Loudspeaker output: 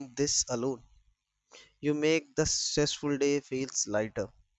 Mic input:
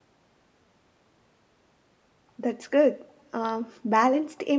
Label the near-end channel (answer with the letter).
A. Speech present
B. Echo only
A